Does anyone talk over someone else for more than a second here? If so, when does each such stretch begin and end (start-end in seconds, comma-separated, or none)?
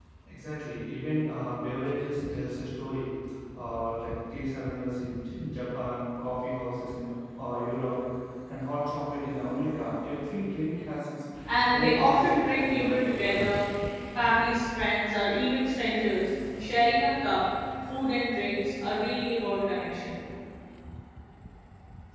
11.7-13.5